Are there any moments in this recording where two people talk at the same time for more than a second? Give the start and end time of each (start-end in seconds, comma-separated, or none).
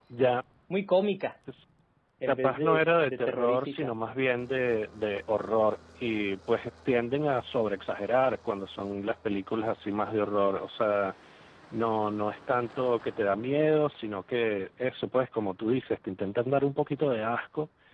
2.3-3.9